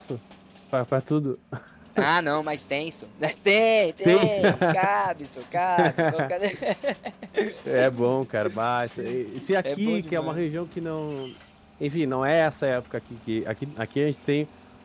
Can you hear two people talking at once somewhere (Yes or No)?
Yes